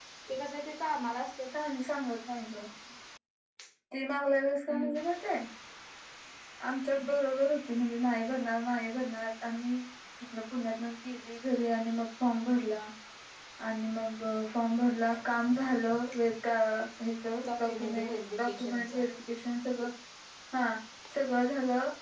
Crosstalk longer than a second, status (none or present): present